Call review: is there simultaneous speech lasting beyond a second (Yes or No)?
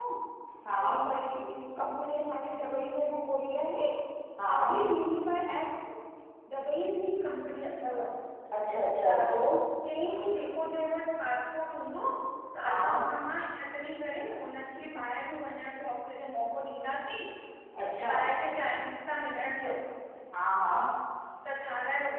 No